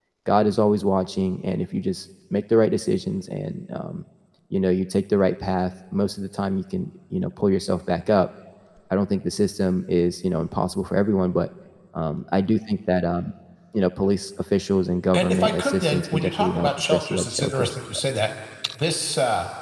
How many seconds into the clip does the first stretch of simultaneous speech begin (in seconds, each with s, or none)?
15.1 s